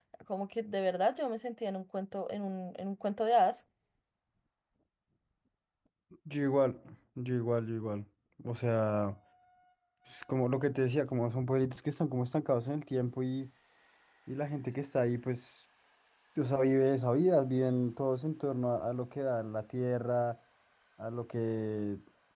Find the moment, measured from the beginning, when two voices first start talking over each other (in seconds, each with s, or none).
none